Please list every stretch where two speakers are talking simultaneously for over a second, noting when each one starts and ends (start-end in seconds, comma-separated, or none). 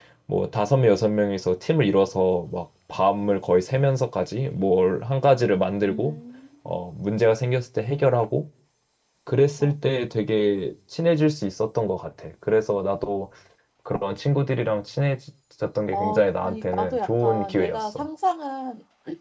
15.9-18.1